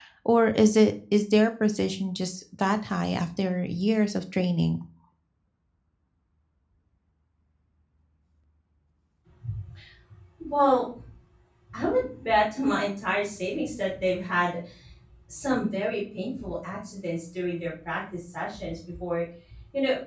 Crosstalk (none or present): none